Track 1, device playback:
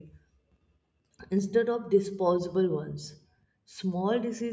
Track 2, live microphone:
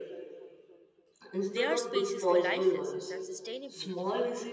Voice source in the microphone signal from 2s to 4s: both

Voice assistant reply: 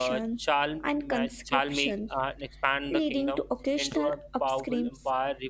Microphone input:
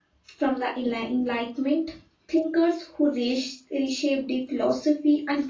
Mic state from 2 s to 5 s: user only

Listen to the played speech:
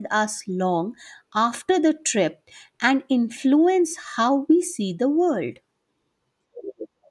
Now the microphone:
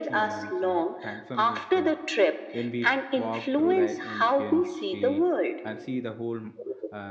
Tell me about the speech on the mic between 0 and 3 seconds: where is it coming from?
both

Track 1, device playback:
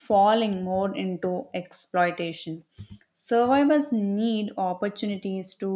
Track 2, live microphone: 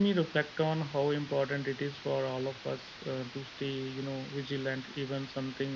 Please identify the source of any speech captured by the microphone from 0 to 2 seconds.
user only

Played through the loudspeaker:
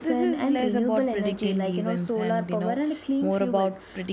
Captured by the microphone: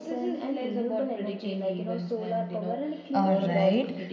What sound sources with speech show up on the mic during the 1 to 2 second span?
echo only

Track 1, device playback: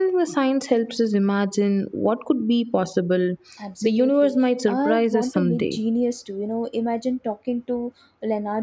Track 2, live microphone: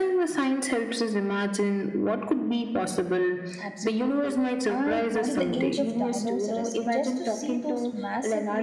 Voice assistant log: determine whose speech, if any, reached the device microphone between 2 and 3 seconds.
echo only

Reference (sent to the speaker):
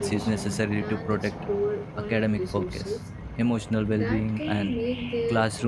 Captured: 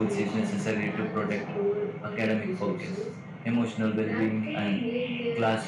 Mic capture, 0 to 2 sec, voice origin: echo only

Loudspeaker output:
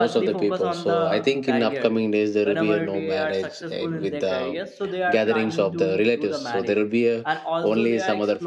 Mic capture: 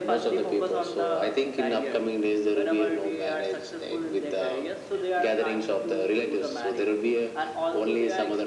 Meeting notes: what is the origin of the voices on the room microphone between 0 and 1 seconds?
echo only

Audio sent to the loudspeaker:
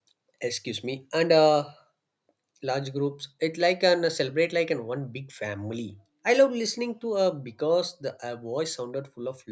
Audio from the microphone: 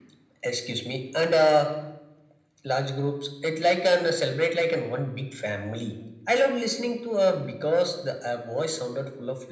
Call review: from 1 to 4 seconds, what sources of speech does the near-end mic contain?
echo only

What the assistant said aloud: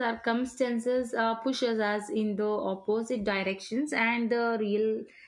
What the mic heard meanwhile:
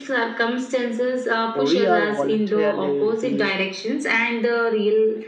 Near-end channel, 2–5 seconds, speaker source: both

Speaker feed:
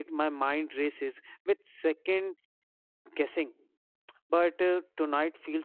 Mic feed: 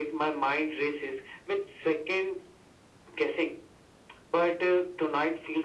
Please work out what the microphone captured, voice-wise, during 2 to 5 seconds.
echo only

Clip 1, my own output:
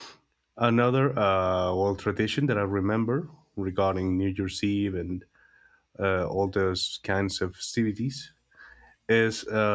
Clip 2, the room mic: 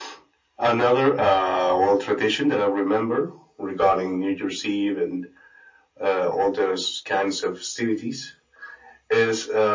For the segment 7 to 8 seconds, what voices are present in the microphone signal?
echo only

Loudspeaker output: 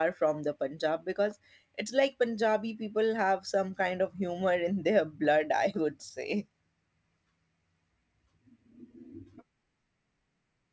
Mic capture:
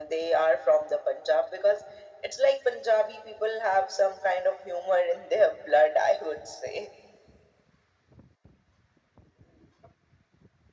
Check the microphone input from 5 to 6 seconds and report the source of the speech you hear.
echo only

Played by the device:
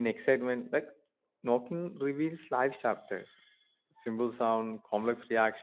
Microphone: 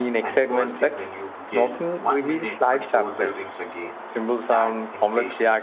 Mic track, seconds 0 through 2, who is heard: both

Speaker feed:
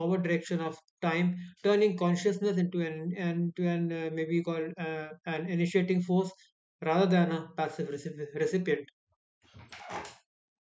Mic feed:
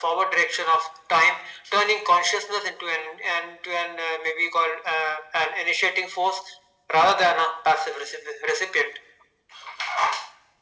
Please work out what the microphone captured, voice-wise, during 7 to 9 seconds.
echo only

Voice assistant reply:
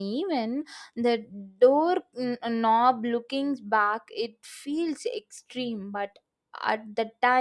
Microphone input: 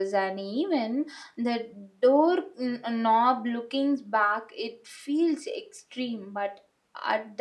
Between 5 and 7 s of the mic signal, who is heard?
echo only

